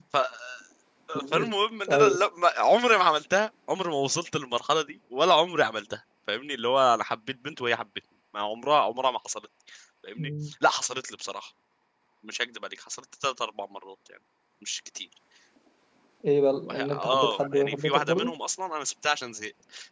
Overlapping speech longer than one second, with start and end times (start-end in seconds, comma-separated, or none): 16.6-18.3